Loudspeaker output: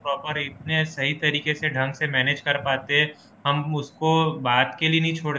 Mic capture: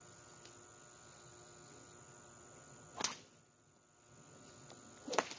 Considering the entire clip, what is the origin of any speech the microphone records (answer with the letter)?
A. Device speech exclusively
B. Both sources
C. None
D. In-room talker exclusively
C